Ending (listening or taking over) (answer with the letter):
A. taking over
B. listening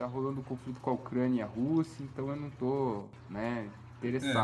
A